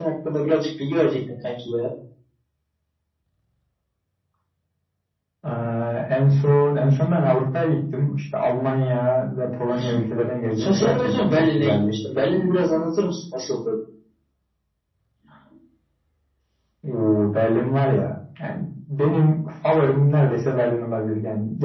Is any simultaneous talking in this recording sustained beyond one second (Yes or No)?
Yes